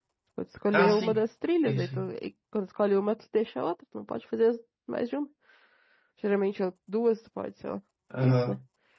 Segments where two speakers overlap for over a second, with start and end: none

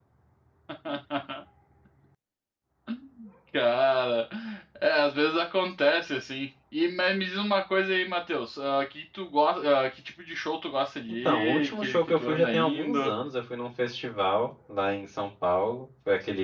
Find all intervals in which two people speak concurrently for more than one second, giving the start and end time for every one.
11.2-13.1

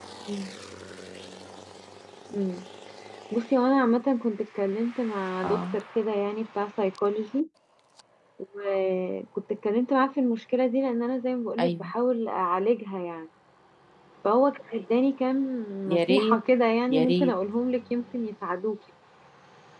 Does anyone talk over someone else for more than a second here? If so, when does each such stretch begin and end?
none

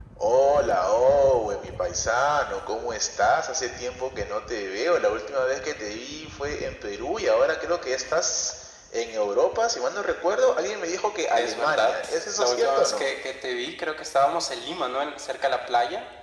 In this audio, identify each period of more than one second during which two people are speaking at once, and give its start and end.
11.3-13.1

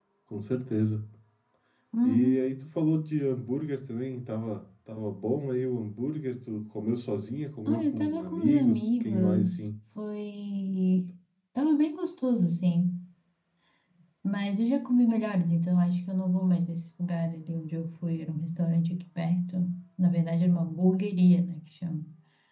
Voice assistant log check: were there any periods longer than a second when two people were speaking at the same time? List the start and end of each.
7.7-9.7

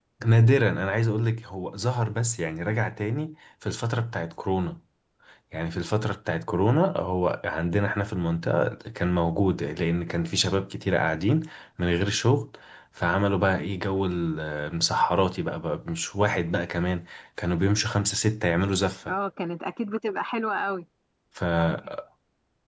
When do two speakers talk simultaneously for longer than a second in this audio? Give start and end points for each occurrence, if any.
none

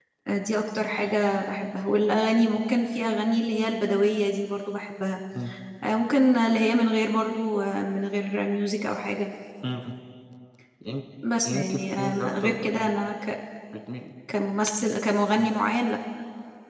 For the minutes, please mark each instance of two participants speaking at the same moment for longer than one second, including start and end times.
11.4-12.9

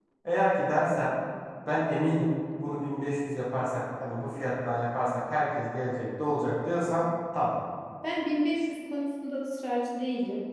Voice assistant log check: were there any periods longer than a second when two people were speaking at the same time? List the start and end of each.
none

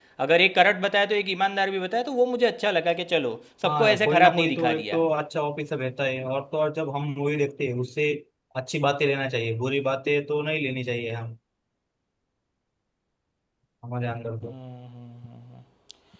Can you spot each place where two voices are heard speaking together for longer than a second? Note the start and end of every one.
3.7-5.0

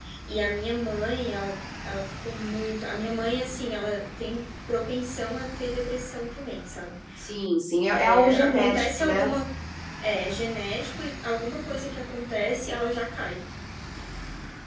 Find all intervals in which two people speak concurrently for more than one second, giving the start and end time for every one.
7.9-9.3

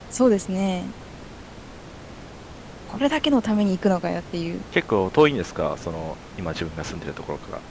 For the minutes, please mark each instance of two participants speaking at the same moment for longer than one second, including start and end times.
none

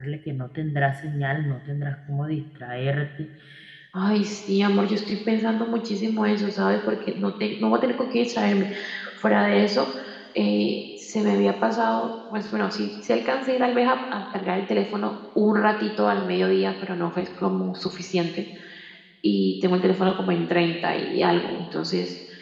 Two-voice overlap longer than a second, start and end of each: none

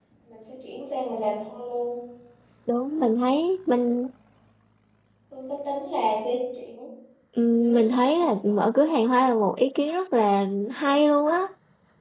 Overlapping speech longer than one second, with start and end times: none

